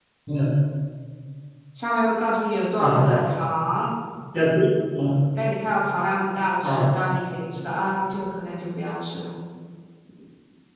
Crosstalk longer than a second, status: none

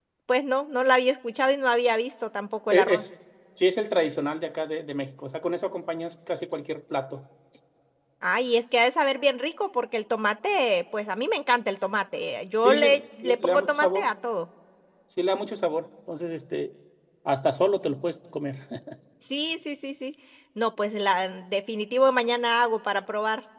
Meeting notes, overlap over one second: present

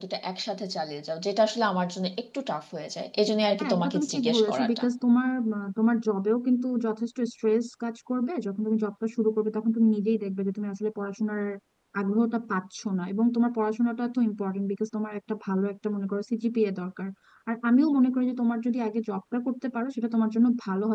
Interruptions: present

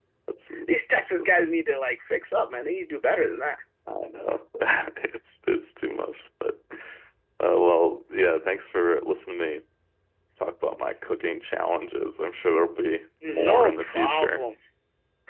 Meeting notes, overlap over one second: present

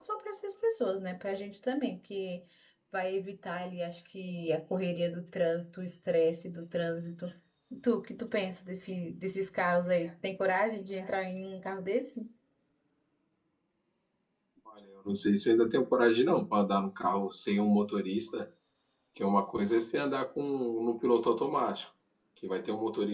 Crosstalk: none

